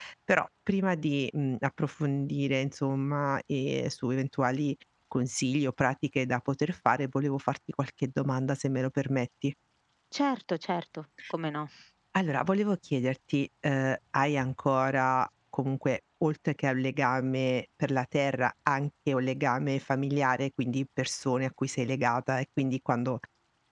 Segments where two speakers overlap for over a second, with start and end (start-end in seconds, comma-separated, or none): none